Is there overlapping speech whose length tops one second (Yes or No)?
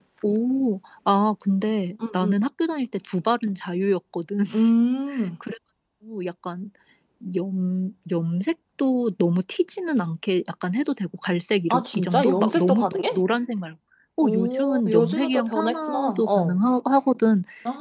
Yes